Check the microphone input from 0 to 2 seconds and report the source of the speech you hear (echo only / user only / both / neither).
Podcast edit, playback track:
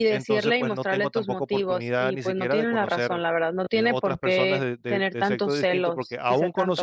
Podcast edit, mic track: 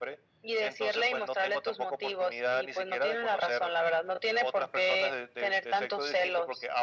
echo only